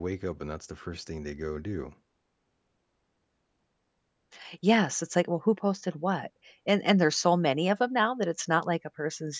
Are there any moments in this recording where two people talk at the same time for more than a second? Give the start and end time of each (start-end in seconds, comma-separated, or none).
none